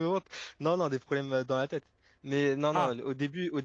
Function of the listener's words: listening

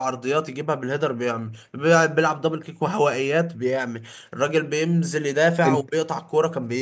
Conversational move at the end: listening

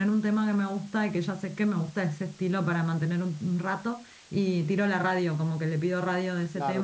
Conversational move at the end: taking over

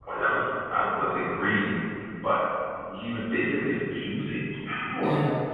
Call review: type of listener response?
taking over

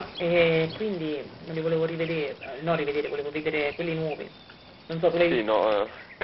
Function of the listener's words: taking over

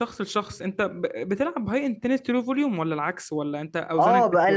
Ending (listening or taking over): taking over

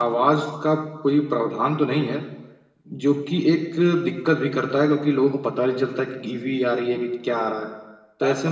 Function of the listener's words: taking over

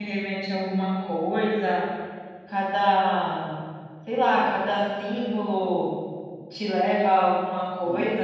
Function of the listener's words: taking over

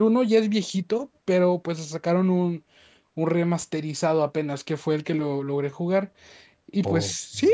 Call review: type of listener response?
listening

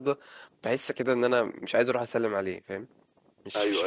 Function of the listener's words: taking over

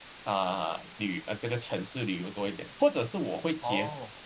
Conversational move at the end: listening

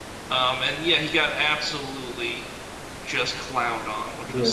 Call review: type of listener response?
taking over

